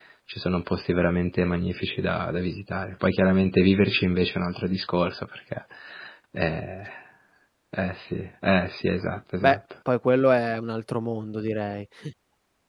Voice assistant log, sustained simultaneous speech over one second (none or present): none